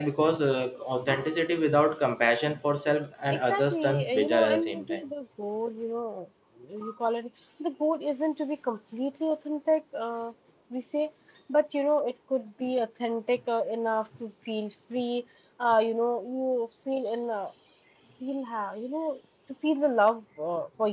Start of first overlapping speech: 3.3 s

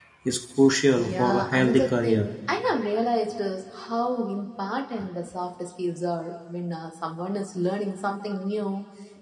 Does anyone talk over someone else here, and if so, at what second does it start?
1.0 s

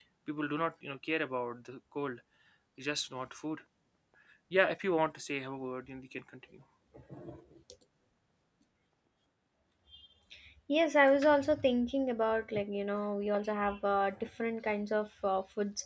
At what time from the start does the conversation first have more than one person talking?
none

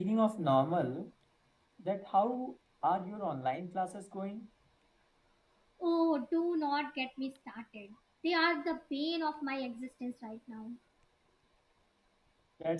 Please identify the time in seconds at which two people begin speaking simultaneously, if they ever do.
none

